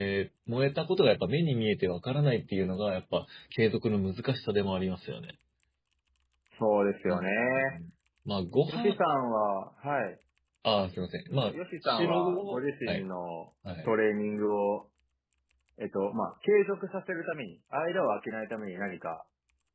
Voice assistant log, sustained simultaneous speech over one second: present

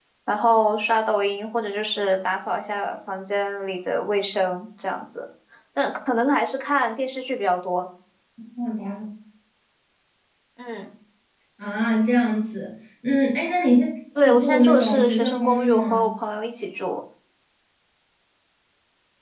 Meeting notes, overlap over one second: present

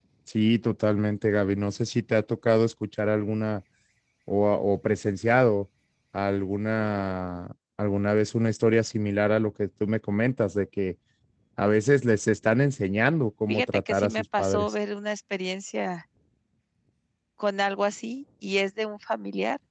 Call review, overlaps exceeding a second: present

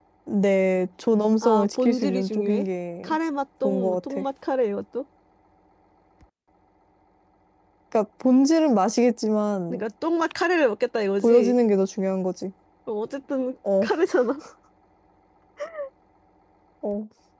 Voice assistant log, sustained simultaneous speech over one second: present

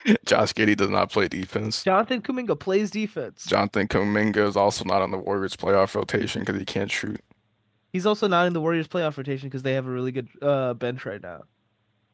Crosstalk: none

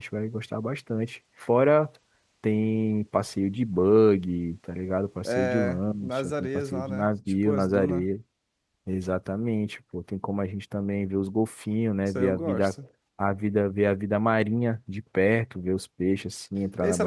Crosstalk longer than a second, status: present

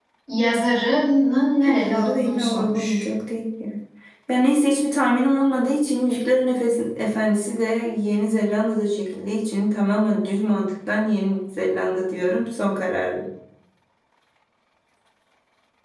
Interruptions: present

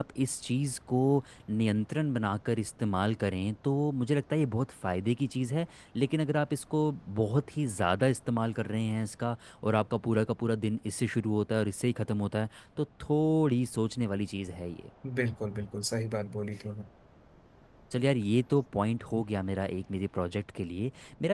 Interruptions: none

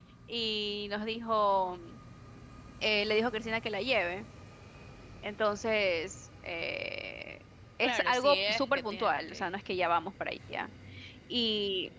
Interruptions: present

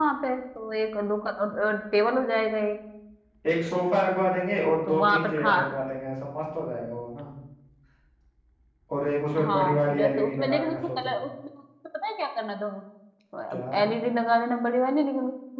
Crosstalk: present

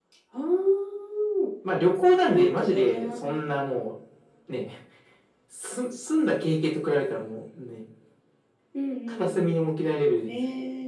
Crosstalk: present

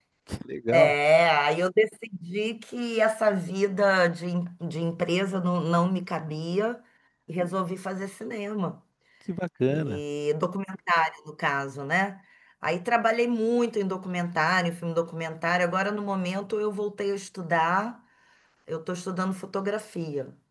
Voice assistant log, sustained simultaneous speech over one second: none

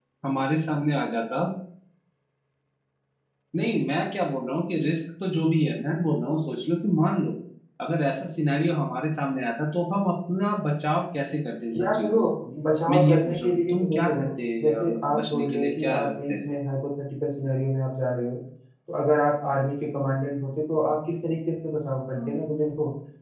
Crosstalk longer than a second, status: present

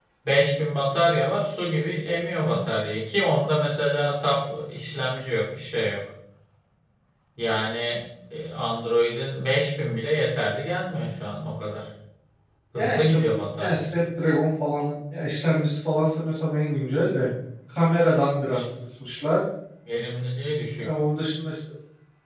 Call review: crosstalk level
present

